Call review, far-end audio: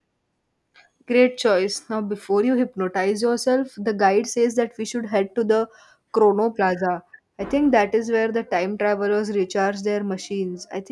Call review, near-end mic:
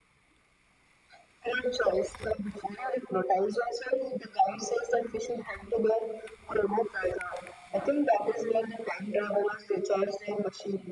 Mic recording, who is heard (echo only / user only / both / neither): echo only